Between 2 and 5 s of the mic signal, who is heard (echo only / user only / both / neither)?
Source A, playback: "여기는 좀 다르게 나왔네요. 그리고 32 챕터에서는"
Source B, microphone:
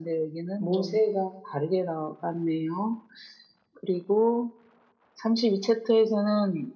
echo only